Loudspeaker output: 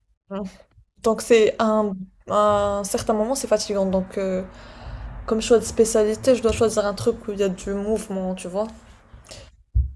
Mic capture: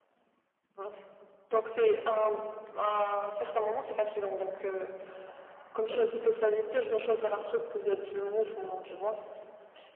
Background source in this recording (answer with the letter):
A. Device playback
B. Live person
B